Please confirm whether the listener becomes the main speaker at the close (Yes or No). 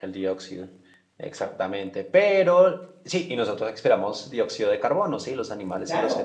Yes